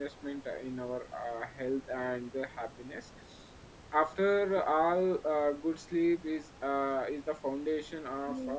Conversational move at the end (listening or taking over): listening